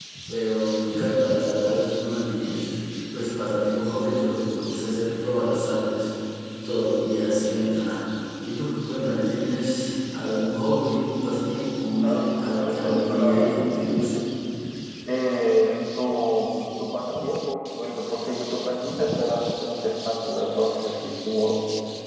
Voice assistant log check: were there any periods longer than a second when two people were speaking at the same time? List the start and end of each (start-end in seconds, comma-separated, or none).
12.0-14.2